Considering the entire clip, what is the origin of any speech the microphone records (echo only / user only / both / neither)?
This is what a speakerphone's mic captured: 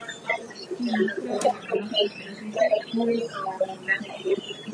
both